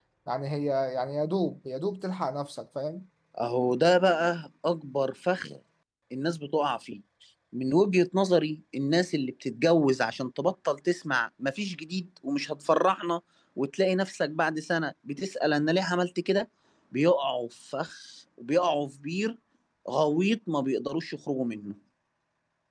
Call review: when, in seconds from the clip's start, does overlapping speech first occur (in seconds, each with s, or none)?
none